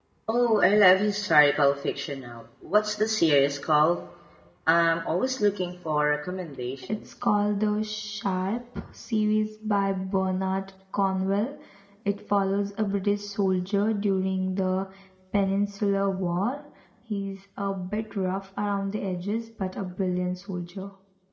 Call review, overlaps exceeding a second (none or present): none